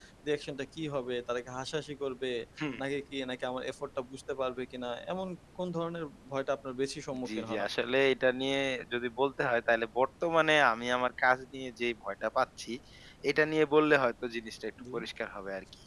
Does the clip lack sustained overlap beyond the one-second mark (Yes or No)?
Yes